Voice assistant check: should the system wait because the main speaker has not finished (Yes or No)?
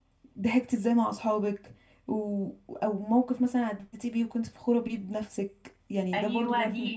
No